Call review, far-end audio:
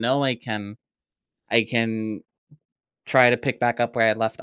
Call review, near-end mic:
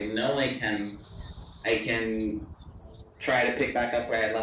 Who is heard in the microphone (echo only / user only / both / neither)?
echo only